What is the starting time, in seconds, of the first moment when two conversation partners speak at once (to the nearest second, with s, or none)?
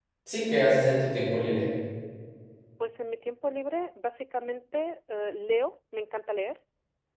none